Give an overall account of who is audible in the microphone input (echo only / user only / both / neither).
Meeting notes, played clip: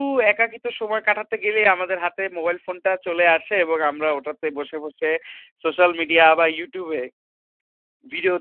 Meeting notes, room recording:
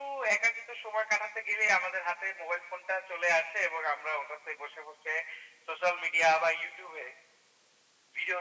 echo only